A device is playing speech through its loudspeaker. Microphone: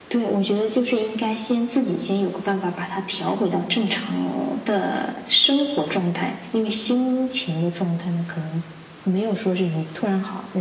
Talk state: echo only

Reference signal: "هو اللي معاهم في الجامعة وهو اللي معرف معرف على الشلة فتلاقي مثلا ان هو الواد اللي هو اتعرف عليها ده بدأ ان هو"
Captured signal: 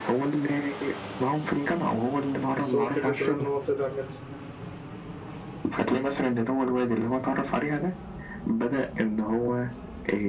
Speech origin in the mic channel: both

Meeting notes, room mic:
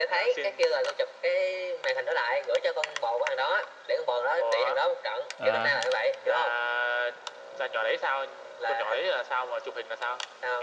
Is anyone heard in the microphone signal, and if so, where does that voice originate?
both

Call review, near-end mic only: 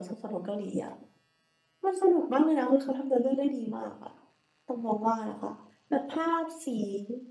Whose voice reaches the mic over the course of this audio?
echo only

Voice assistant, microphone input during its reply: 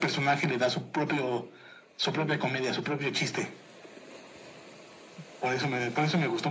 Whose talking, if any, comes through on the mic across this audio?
both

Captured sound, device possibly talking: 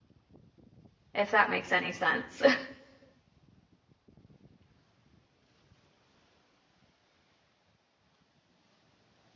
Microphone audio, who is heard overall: user only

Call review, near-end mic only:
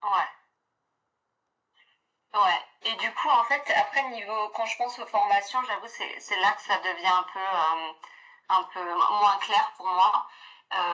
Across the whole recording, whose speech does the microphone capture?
echo only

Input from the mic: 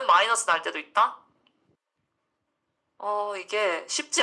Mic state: echo only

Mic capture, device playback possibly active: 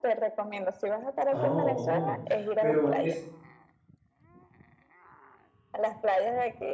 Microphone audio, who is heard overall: both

